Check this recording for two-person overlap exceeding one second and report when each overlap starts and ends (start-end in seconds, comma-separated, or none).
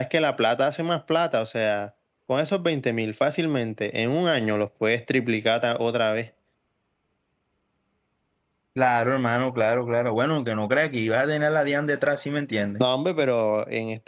none